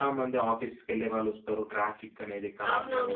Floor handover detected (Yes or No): Yes